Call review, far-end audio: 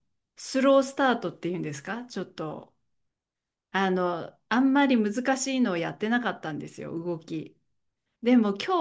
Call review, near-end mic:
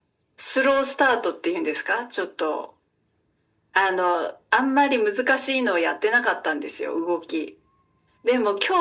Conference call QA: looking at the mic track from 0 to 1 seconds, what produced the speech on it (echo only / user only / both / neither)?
echo only